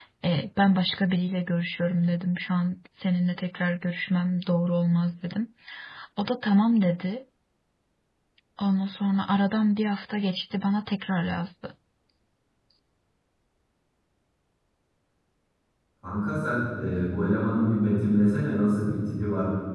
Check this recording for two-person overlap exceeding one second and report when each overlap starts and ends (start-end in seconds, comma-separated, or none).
none